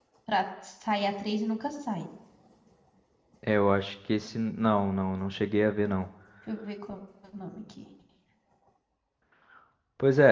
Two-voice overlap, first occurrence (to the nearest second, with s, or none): none